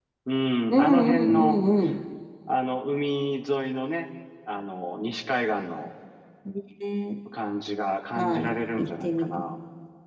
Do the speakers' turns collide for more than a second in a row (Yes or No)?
Yes